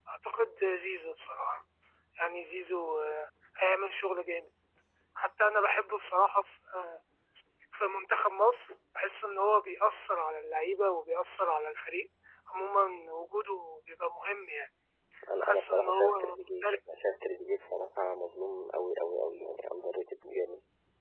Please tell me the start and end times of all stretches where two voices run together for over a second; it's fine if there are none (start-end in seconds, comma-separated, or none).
15.4-16.6